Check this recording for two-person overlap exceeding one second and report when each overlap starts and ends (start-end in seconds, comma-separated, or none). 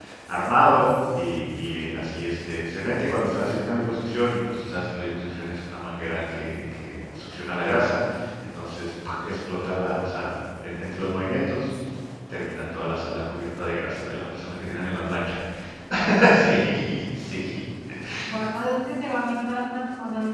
none